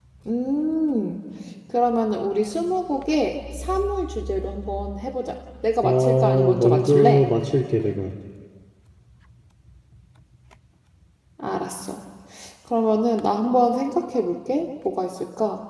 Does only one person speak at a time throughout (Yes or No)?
No